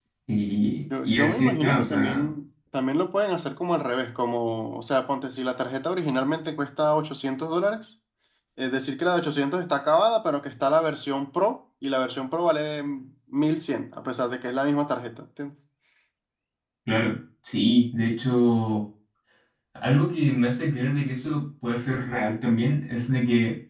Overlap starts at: 1.1 s

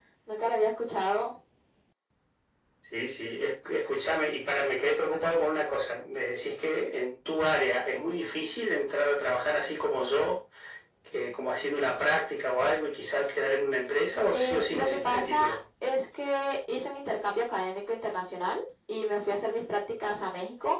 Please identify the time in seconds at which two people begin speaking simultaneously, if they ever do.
14.3 s

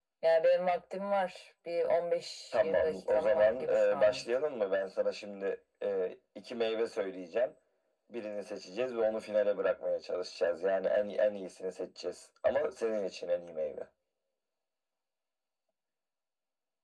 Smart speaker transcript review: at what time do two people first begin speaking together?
2.5 s

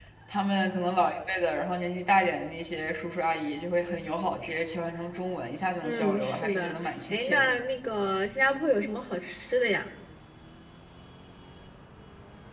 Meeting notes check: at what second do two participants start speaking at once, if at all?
5.8 s

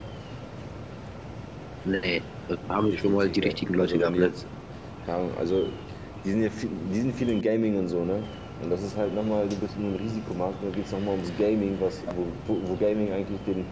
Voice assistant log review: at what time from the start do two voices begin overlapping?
2.8 s

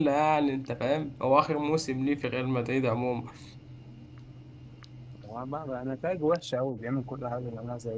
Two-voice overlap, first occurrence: none

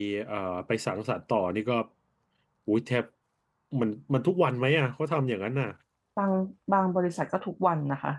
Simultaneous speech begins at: none

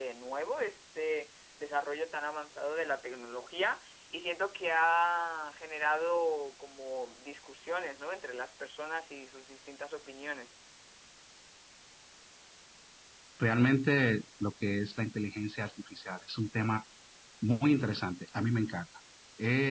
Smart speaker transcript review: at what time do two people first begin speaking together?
none

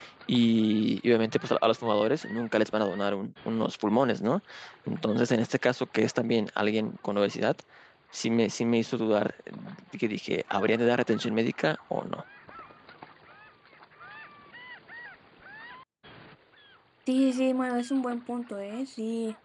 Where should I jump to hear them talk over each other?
none

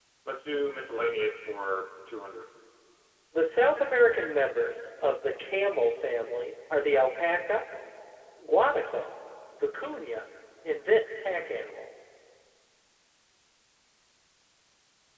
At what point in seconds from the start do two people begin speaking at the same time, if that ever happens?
none

